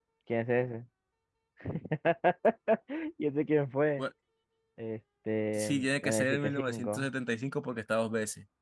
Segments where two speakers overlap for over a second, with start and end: 5.5-7.1

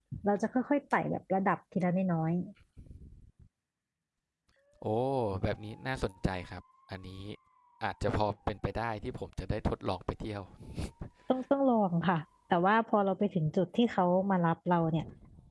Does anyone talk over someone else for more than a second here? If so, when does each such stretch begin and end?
none

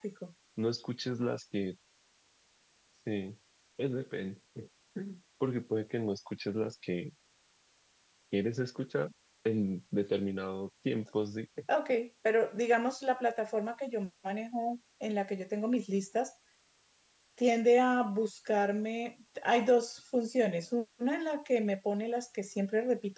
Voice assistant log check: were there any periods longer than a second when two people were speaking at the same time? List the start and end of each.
none

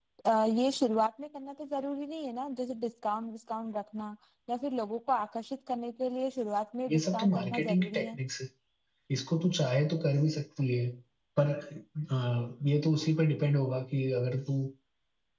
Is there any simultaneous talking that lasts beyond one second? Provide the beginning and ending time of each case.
6.9-8.2

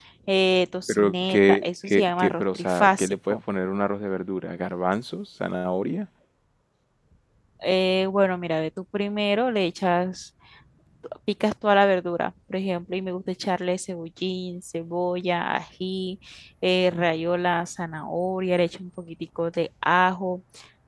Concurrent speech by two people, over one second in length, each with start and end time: 0.9-3.4

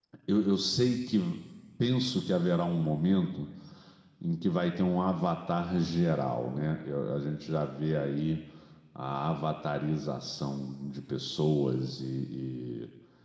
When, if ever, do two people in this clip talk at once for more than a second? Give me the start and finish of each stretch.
none

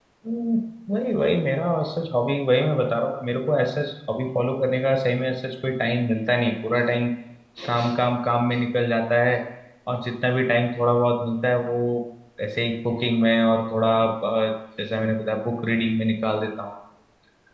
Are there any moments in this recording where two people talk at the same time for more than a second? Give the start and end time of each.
none

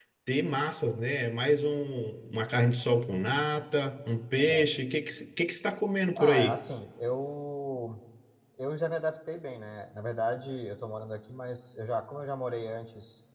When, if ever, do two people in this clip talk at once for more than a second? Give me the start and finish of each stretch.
none

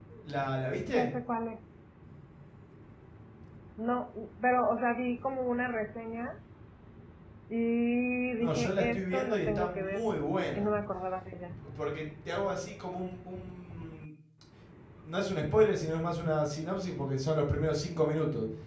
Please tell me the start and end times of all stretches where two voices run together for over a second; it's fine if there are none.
8.4-10.0

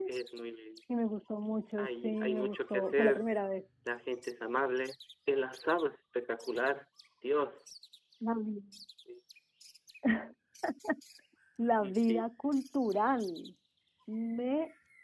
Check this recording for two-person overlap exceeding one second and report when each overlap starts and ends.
1.8-3.2

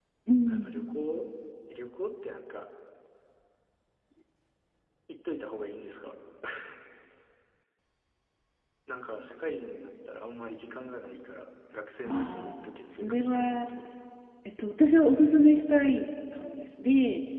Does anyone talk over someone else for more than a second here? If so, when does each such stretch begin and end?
12.1-13.7

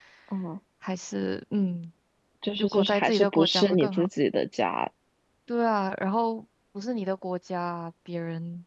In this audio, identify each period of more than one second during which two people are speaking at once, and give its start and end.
2.6-4.1

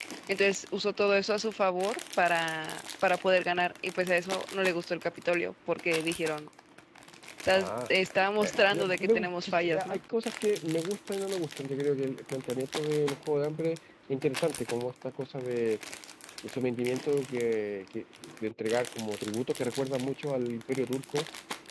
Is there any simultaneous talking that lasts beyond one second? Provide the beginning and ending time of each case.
8.4-10.0

